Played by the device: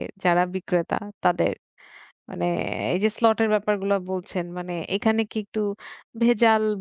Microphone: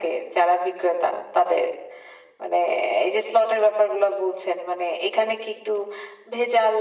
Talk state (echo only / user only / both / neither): echo only